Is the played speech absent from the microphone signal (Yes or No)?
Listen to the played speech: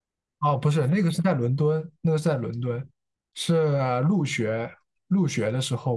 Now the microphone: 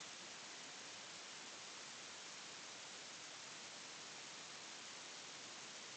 Yes